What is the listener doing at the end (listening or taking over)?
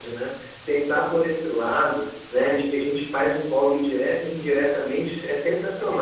listening